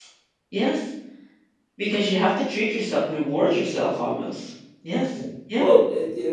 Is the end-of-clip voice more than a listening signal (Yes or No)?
Yes